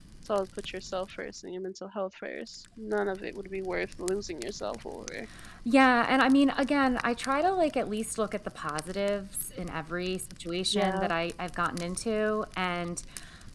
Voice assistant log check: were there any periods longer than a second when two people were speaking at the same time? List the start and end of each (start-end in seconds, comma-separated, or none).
none